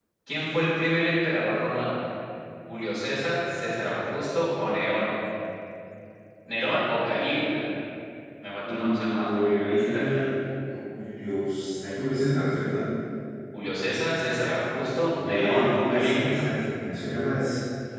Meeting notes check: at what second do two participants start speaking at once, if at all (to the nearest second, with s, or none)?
9 s